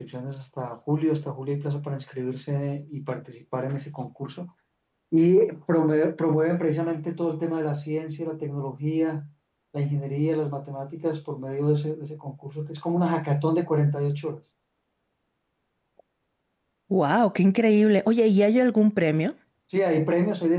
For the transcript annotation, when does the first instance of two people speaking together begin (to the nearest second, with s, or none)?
none